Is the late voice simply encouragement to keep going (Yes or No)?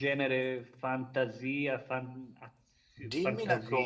No